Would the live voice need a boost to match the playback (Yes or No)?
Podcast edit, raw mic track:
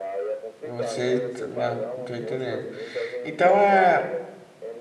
No